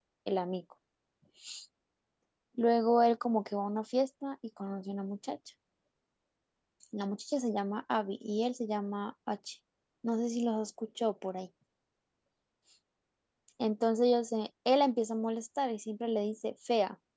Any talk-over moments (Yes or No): No